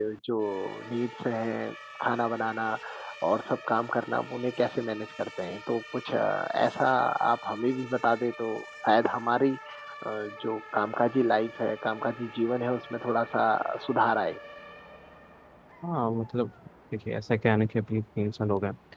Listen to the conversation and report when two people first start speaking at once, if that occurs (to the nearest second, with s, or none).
none